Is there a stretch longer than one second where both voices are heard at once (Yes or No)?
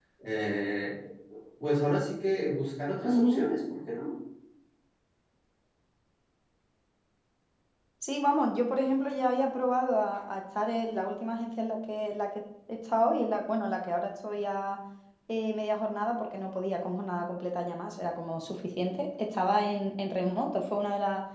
No